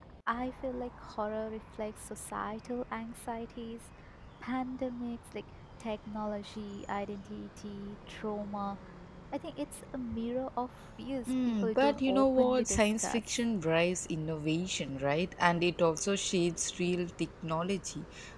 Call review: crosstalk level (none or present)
present